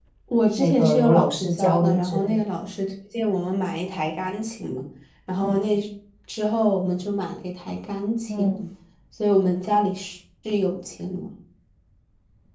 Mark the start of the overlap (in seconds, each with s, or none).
0.6 s